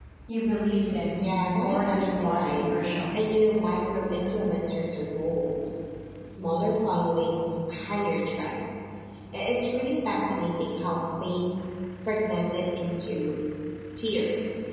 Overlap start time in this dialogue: 1 s

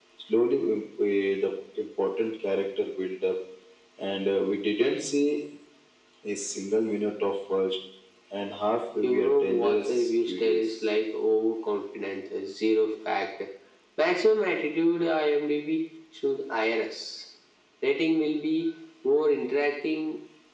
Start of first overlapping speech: 9 s

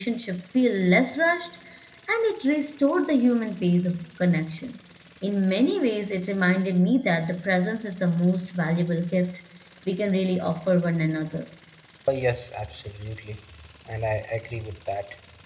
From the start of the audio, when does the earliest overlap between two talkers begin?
none

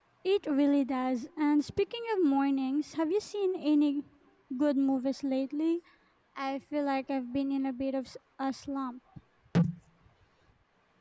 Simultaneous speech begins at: none

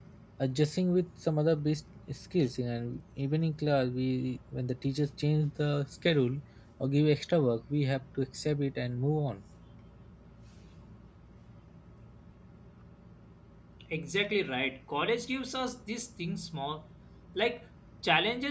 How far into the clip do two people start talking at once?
none

